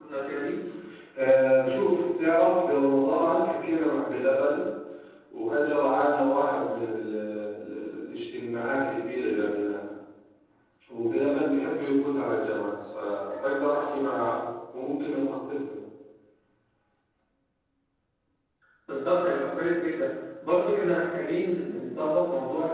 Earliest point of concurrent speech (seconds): none

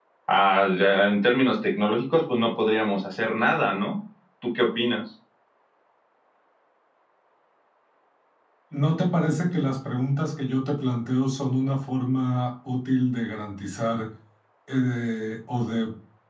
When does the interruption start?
none

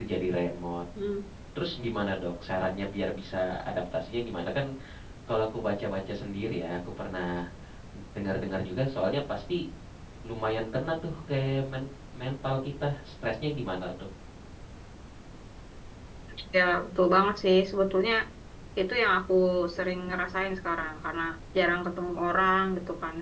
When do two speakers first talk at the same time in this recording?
none

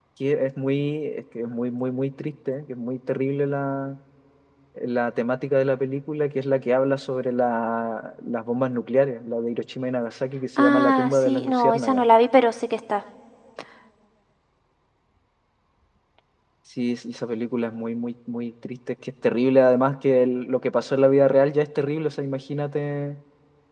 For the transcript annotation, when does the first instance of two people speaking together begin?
10.6 s

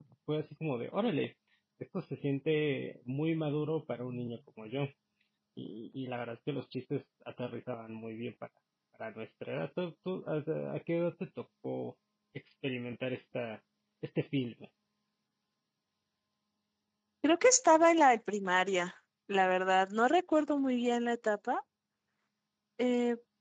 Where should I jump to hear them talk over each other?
none

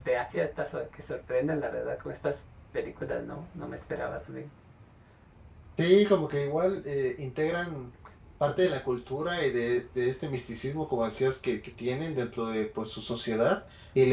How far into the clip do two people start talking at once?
none

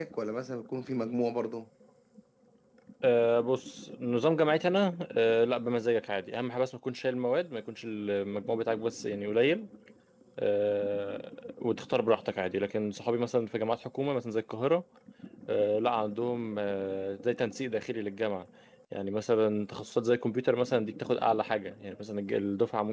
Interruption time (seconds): none

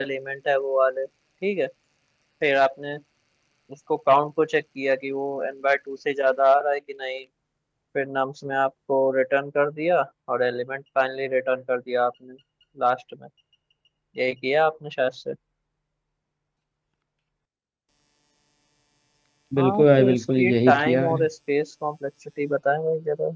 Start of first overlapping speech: 19.6 s

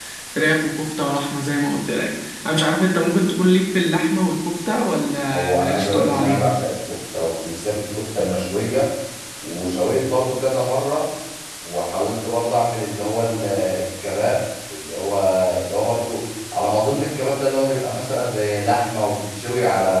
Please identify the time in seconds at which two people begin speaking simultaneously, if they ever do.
5.3 s

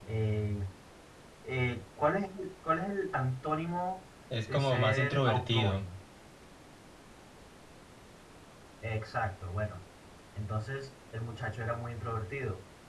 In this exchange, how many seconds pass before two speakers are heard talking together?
4.5 s

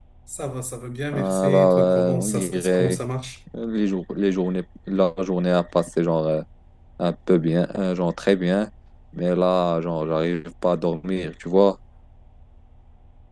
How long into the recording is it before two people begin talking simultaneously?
1.1 s

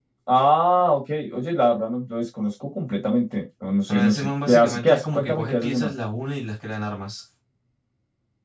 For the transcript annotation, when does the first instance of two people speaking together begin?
3.9 s

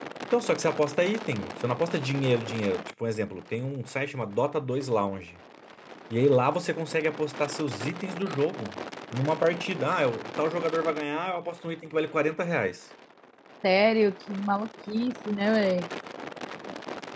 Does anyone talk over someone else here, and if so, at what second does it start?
none

